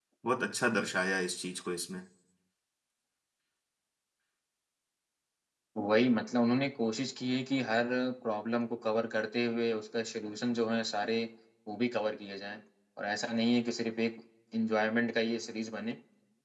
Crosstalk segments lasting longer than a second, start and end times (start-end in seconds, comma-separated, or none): none